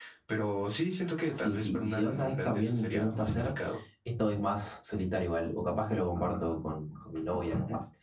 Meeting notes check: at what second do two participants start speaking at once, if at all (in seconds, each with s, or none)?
1.2 s